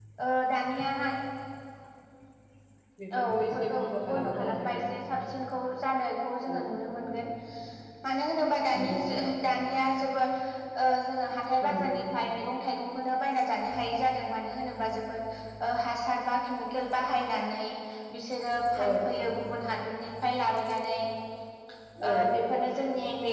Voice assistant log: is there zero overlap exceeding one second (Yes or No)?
No